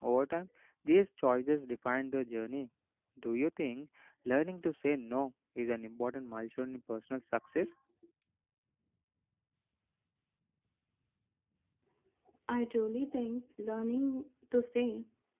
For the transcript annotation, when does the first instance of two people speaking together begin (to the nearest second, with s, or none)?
none